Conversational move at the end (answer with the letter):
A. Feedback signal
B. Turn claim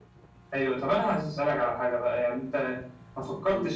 A